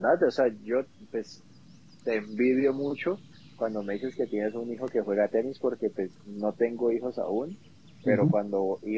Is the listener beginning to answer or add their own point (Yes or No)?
No